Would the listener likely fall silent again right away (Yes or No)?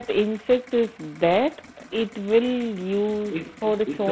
No